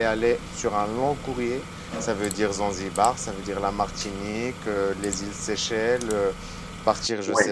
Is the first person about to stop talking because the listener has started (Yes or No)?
Yes